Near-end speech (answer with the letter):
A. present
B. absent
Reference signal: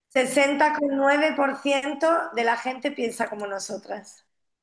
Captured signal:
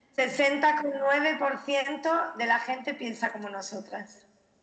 B